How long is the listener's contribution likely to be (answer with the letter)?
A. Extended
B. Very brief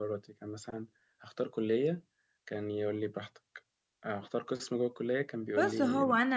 A